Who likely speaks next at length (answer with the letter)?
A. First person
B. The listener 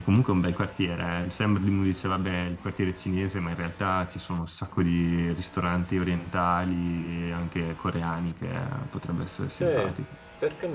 B